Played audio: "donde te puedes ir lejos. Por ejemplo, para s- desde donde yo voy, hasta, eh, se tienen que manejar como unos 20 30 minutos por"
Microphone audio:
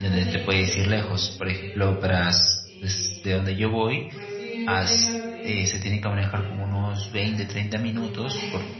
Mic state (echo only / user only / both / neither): both